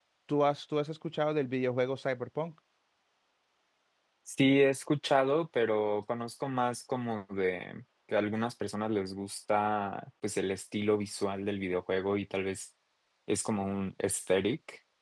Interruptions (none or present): none